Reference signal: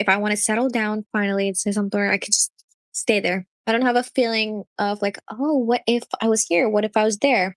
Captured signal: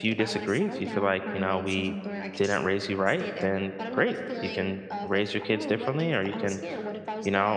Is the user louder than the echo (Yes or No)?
Yes